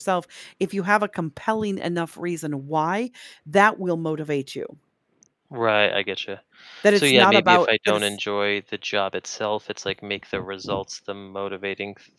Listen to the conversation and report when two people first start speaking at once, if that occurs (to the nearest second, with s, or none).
7 s